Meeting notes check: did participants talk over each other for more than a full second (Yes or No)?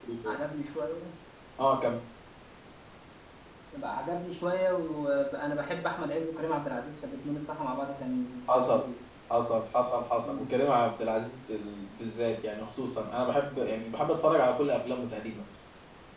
No